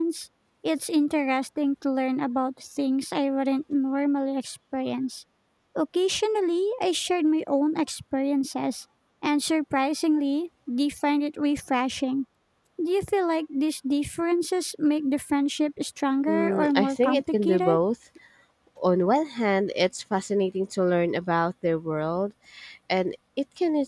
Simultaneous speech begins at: 16.3 s

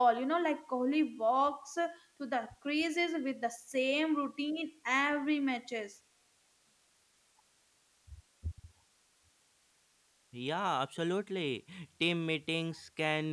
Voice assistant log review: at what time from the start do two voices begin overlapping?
none

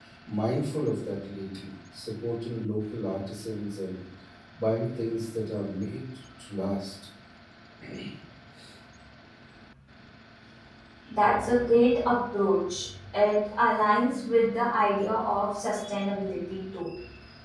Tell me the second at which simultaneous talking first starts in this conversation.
none

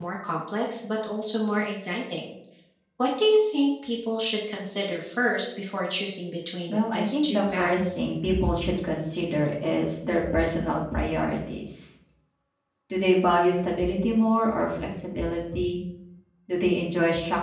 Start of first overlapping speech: 6.7 s

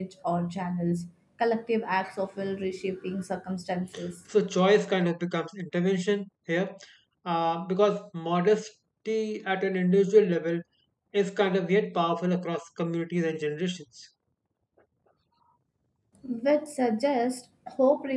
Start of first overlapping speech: none

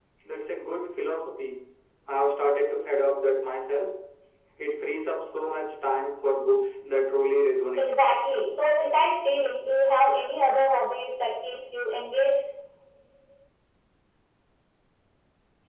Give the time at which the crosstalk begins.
none

